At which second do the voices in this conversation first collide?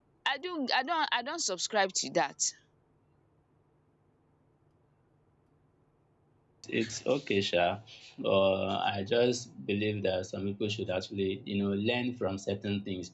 none

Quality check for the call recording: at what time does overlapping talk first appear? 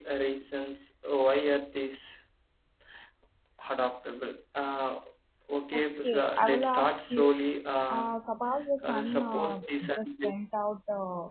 5.7 s

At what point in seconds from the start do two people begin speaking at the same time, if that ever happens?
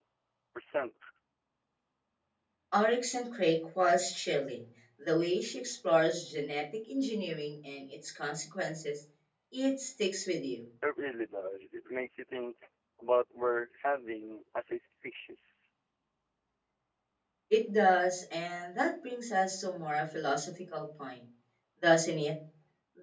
none

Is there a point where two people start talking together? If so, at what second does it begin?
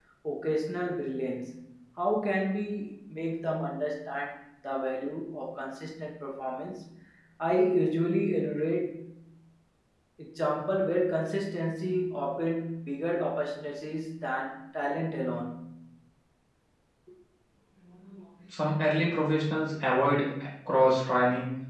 none

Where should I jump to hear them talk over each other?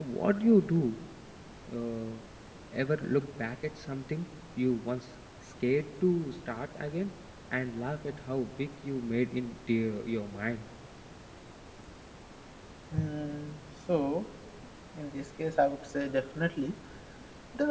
none

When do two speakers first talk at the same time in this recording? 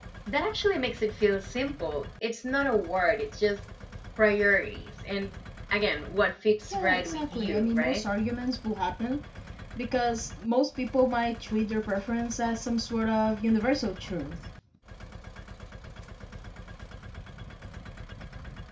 6.7 s

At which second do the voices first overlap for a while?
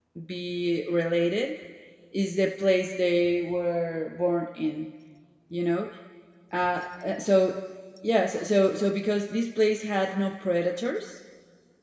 none

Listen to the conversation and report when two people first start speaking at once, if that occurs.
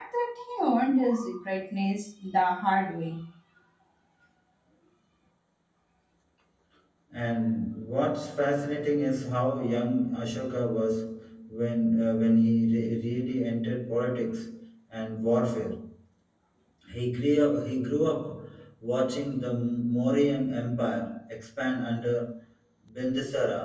none

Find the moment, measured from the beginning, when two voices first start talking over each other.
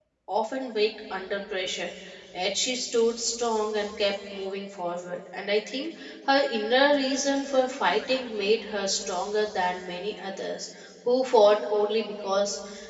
none

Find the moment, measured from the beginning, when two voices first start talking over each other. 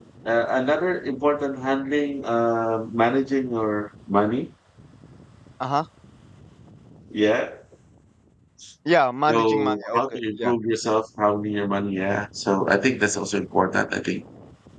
9.3 s

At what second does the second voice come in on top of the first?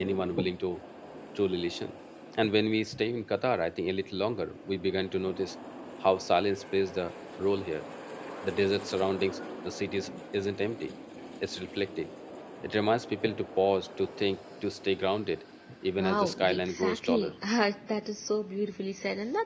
16.0 s

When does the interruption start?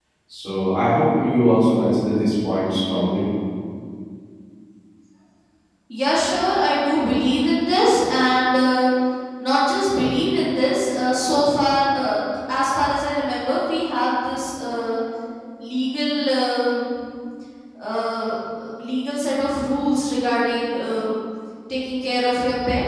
none

